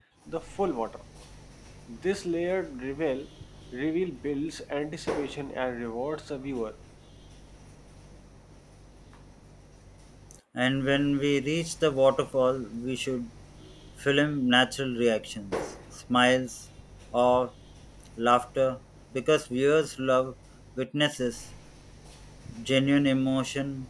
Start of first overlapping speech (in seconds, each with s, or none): none